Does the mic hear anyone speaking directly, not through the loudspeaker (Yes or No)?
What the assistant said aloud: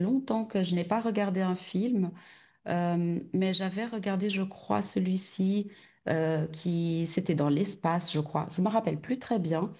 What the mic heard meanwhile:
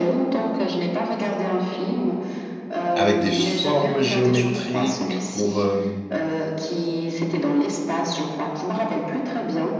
Yes